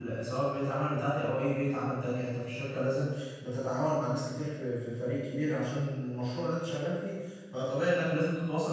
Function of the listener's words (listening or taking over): listening